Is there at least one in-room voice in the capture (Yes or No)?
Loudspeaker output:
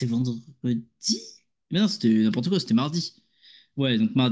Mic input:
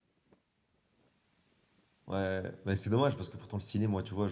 Yes